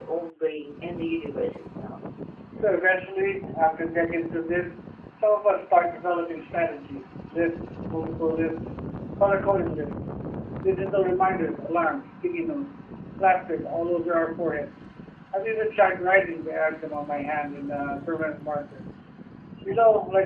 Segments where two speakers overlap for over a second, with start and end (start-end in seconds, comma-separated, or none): none